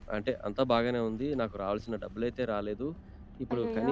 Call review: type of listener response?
listening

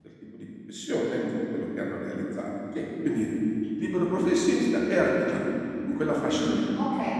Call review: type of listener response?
taking over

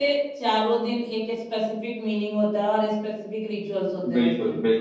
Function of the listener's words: taking over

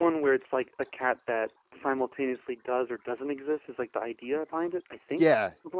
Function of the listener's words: taking over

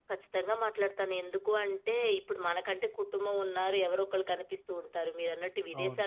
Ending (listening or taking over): listening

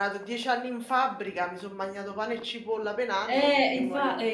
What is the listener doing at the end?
taking over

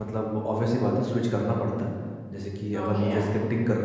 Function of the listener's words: listening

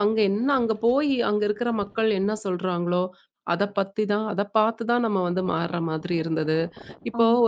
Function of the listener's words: listening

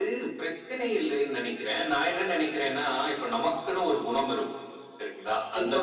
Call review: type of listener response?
listening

